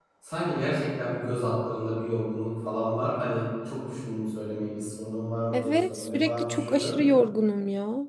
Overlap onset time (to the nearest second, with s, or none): 6 s